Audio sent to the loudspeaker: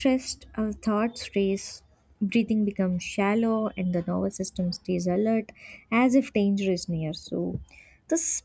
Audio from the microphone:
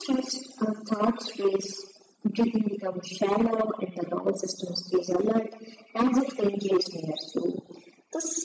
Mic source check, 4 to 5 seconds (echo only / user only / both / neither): echo only